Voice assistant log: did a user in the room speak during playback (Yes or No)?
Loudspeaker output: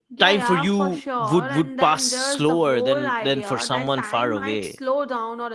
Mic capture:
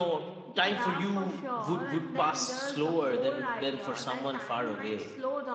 No